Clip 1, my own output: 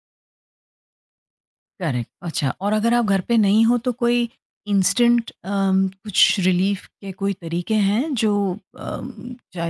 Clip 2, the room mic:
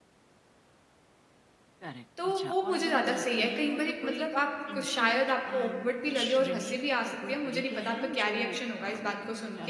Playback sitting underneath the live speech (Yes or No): Yes